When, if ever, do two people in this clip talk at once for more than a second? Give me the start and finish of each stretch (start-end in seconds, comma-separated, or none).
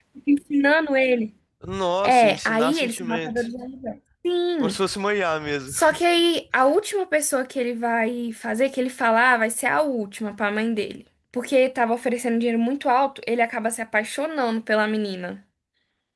2.0-3.5